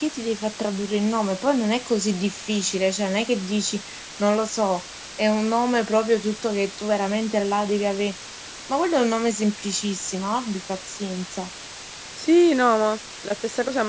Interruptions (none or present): none